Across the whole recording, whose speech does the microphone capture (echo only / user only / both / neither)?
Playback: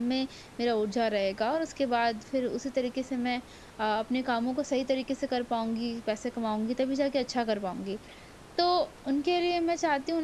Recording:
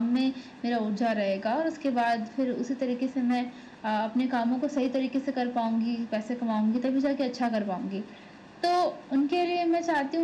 echo only